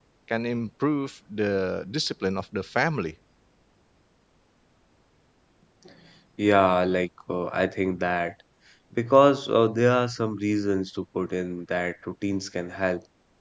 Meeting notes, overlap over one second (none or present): none